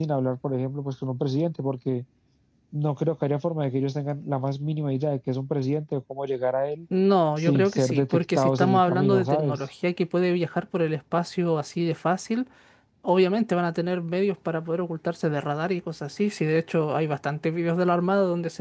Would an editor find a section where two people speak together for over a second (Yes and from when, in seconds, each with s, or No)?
Yes, from 7.4 s